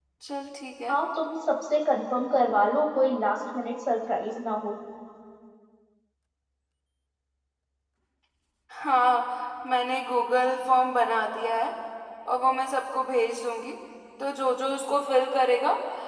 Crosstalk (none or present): none